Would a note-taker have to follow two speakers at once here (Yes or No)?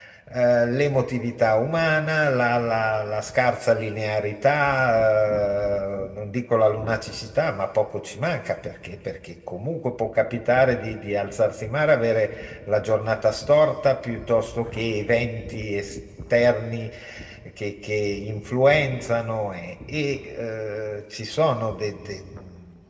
No